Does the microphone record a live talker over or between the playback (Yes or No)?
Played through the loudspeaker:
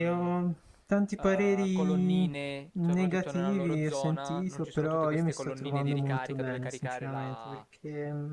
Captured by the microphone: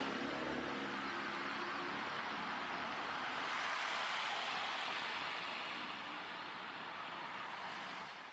No